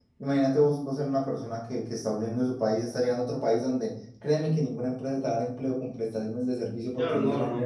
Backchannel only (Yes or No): No